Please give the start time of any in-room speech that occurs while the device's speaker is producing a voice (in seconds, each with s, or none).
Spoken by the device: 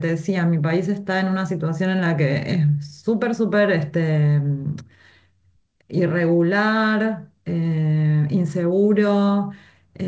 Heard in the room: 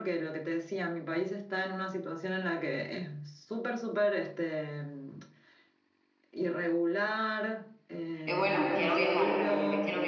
8.2 s